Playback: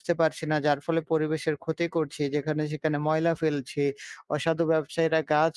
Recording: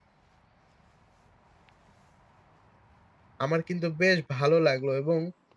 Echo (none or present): none